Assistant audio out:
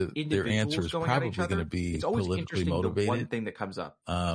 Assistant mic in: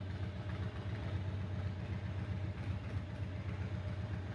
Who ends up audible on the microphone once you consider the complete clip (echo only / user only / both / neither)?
neither